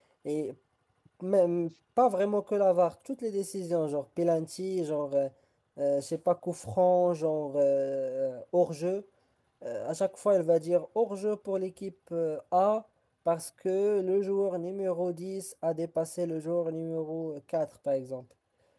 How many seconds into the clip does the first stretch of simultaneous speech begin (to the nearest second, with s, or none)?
none